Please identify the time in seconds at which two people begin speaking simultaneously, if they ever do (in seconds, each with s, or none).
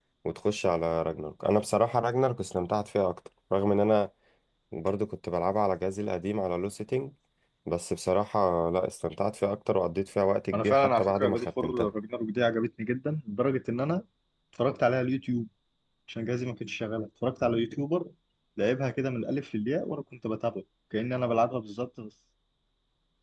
10.5 s